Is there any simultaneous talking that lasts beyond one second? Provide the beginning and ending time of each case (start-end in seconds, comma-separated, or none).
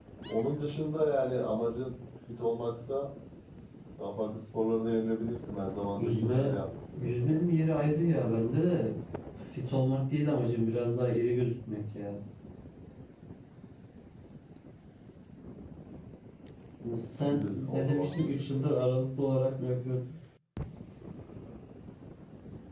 17.2-18.8